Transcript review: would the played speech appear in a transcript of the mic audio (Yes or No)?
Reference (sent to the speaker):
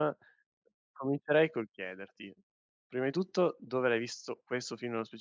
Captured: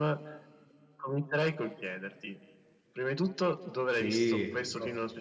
Yes